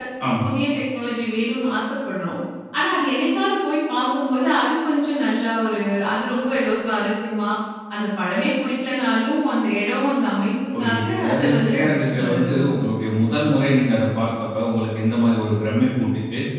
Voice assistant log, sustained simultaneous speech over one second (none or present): present